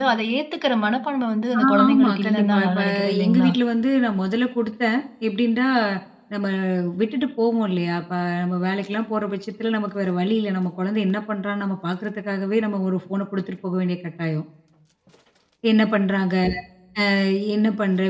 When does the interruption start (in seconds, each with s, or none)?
1.5 s